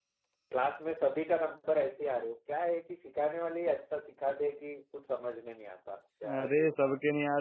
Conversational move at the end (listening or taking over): taking over